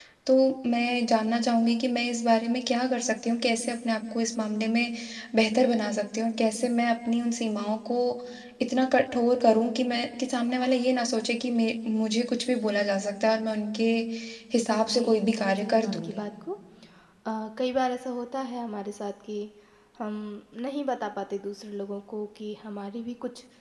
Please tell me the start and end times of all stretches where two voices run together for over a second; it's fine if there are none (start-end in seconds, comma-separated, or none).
14.9-16.3